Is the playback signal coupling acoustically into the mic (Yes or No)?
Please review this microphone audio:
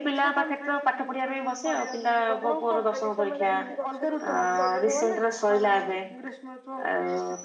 Yes